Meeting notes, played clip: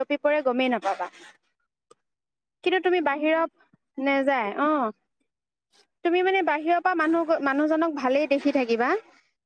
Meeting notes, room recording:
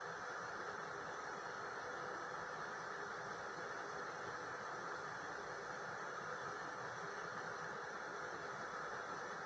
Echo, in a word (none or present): none